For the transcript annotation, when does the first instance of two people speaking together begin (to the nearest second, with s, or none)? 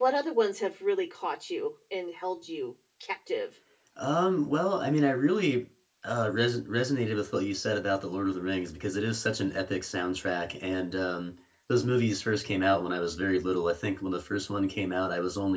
none